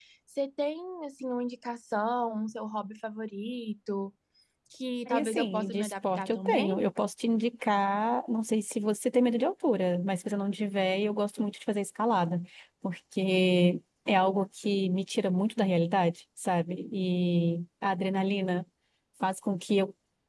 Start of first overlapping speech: 5.1 s

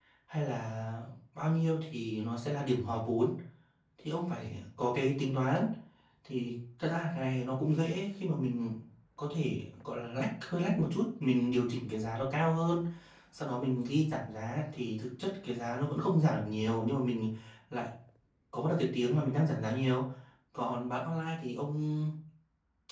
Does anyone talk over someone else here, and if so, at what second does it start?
none

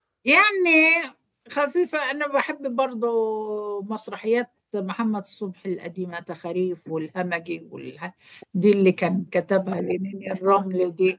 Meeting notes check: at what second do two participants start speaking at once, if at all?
none

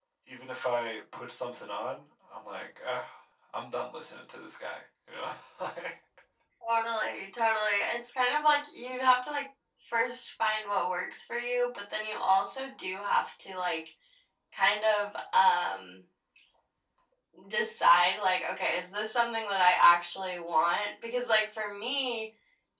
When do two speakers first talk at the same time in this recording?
none

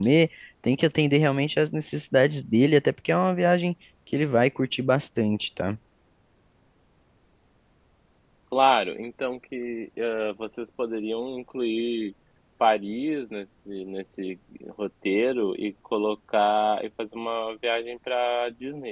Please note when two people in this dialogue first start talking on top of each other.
none

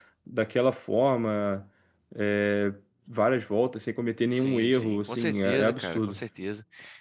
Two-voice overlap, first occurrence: 4.3 s

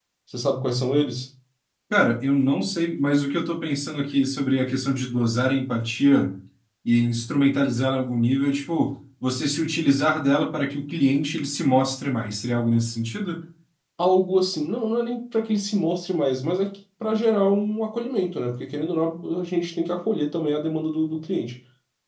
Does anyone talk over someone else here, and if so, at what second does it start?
none

